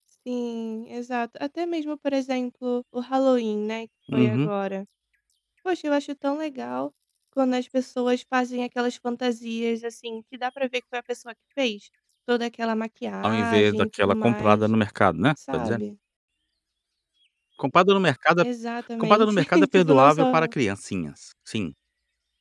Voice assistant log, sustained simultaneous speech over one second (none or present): present